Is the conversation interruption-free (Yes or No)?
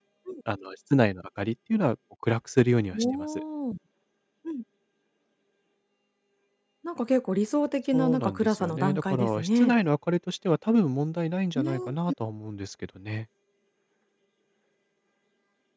No